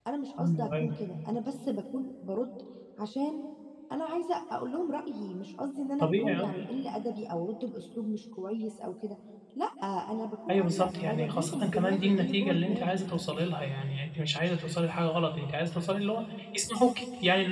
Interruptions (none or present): present